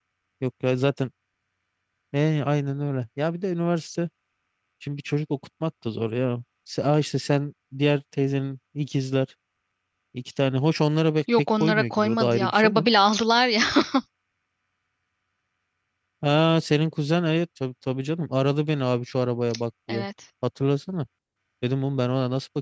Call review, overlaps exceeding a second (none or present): present